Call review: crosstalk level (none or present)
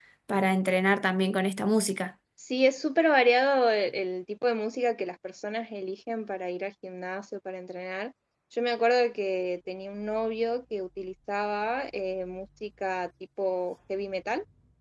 none